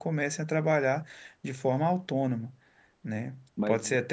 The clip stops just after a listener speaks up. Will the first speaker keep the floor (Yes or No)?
Yes